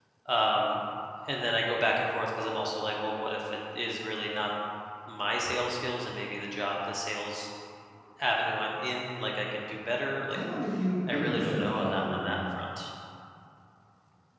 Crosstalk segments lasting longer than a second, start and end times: 11.1-12.4

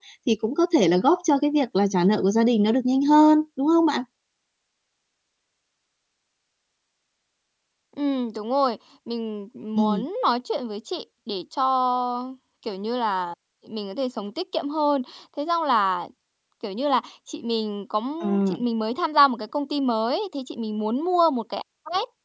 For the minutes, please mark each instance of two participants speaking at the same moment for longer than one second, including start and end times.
none

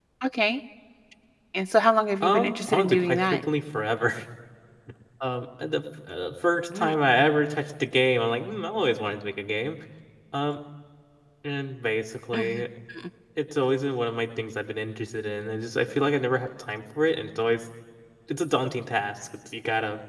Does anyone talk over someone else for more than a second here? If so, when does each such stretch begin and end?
2.2-3.4

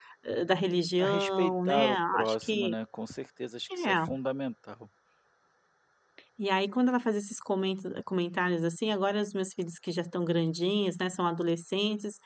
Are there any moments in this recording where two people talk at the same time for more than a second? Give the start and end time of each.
1.0-2.8

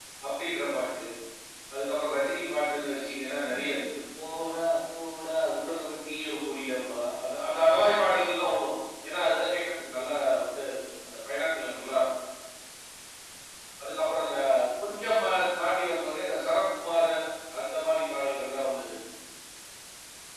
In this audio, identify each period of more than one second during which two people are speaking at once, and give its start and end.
15.2-16.6

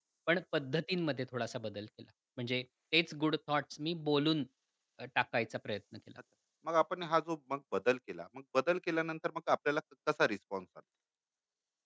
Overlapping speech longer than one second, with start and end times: none

